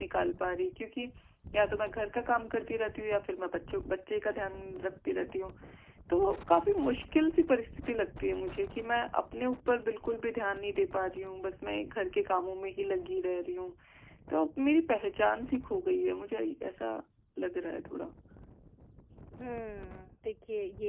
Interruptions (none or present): none